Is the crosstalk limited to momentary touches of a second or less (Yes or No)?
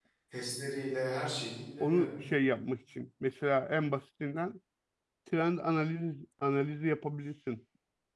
Yes